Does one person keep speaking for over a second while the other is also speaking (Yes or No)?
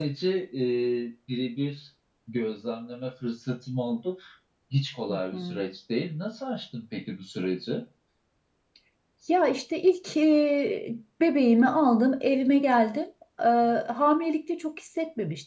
No